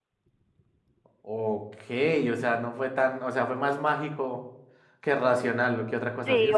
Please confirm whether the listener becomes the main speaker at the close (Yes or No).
No